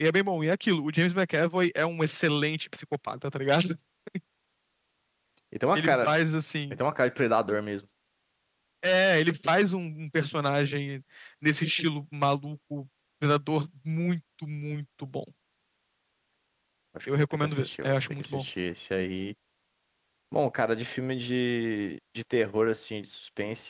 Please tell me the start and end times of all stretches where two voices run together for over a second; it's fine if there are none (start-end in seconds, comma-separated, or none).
17.1-18.5